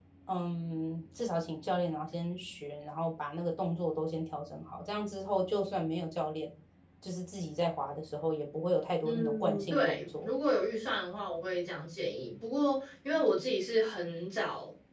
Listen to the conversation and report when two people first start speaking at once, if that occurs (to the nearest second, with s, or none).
9 s